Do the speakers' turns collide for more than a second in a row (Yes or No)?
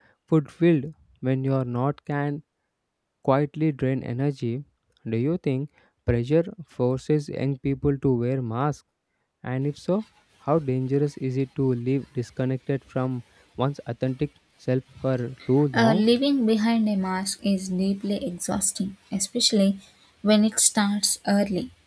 No